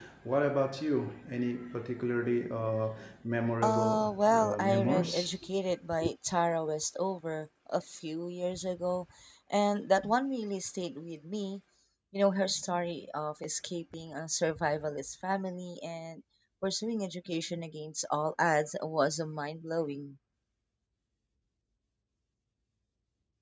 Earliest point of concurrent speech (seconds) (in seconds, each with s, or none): 3.6 s